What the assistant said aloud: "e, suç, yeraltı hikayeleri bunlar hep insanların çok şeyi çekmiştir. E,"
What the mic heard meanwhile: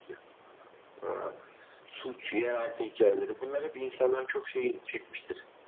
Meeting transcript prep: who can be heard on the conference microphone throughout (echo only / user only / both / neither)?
echo only